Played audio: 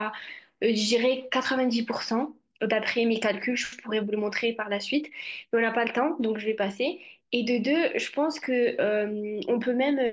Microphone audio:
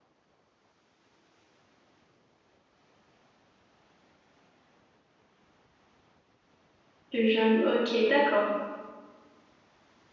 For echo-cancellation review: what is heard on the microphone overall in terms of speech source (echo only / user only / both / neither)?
user only